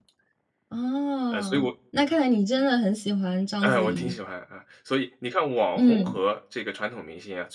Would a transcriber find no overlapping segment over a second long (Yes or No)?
Yes